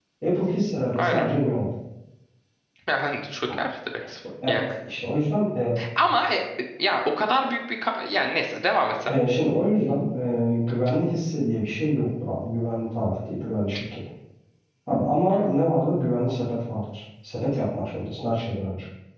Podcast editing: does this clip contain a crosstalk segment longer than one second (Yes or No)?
No